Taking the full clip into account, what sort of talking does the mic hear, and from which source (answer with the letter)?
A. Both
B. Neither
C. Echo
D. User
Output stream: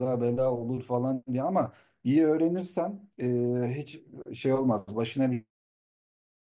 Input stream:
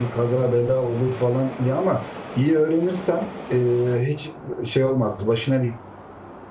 C